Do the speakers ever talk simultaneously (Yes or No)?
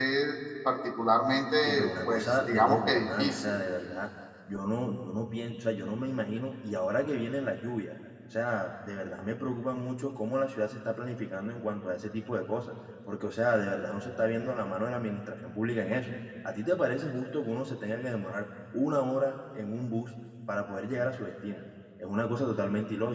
Yes